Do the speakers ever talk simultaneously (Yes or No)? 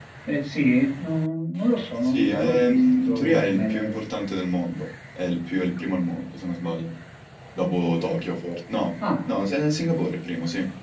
Yes